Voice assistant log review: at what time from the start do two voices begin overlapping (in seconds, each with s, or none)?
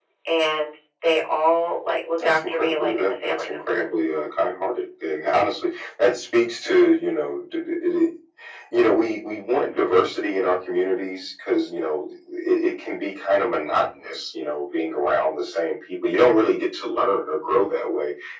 2.2 s